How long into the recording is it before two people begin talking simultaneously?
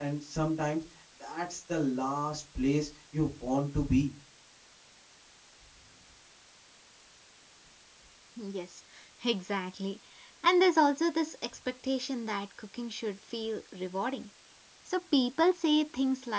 none

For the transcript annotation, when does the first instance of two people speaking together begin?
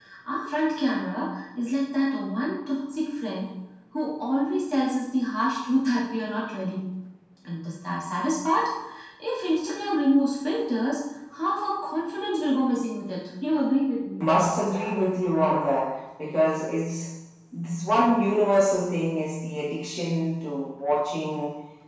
none

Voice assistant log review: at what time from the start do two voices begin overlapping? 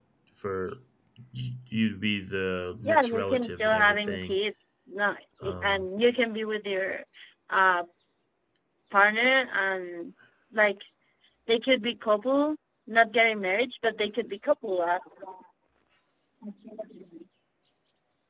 3 s

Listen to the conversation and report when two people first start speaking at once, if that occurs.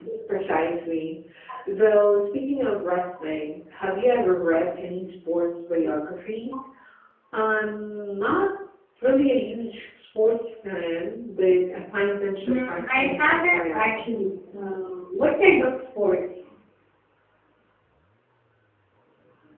12 s

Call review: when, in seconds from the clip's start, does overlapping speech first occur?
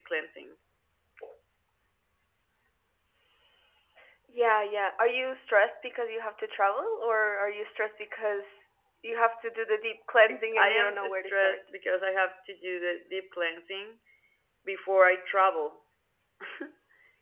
10 s

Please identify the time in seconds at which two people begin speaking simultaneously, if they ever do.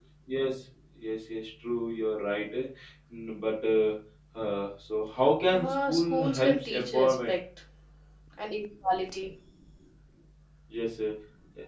6 s

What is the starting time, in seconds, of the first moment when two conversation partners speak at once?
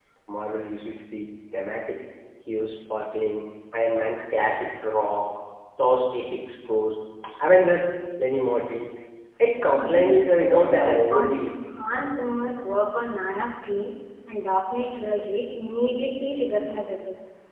10 s

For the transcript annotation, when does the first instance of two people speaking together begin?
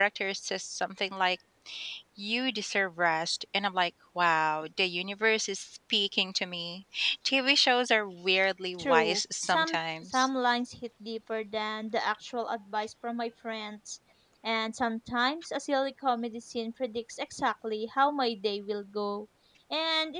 9 s

